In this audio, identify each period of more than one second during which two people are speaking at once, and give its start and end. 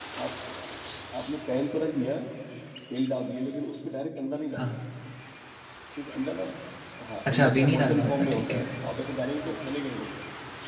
7.3-8.7

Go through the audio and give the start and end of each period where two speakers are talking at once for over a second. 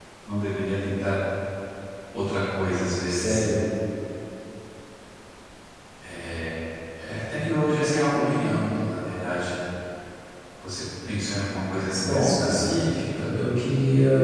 12.0-13.3

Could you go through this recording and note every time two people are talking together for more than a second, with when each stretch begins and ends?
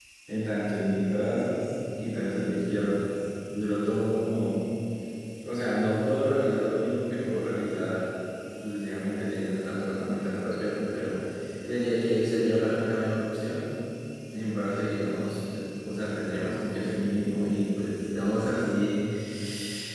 none

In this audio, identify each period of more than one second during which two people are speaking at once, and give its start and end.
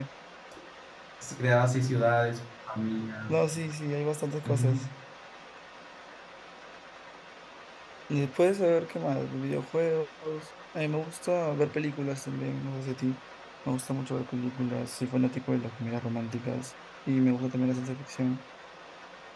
none

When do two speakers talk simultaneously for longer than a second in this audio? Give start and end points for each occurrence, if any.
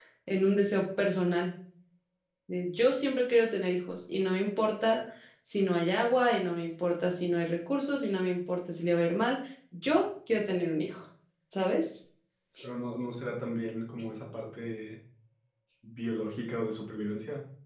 none

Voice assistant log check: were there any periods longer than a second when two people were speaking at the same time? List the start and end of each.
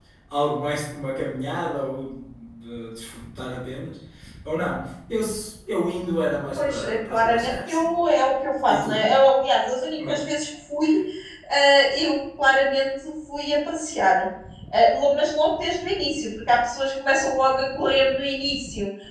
6.6-7.9

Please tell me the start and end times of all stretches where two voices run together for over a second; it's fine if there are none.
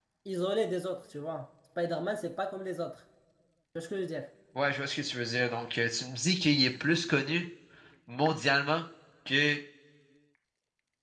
none

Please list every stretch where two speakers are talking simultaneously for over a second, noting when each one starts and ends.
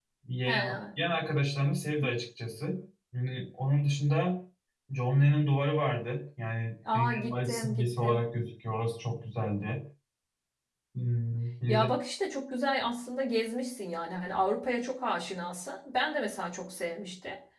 6.9-8.2

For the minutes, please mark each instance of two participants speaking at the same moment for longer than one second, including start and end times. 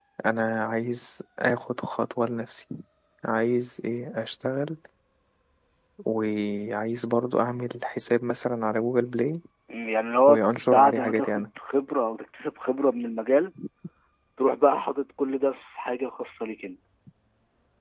10.3-11.5

